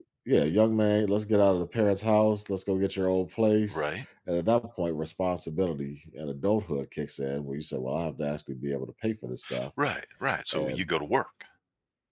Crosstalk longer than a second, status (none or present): none